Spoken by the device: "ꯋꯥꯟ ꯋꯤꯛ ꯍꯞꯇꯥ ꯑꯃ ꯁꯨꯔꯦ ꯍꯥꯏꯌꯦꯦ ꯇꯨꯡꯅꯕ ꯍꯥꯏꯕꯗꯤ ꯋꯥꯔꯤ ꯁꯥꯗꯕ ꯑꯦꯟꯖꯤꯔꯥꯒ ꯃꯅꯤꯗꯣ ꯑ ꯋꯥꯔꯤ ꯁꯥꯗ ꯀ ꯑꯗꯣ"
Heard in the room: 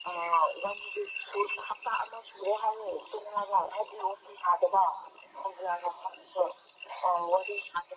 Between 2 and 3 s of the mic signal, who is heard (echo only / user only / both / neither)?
echo only